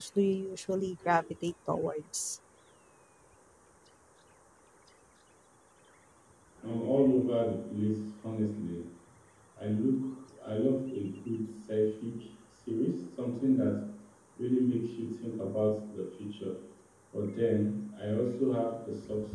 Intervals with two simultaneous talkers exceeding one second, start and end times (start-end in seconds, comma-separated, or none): none